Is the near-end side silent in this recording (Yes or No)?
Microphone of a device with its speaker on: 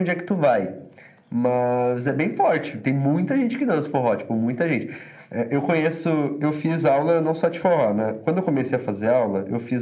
Yes